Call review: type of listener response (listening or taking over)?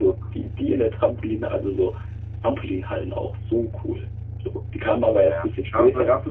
taking over